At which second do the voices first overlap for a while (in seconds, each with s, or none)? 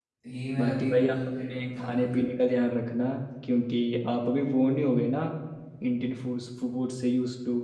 0.6 s